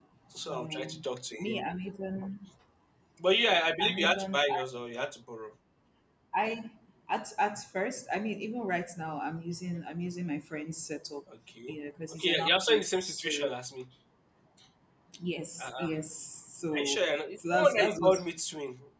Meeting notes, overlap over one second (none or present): present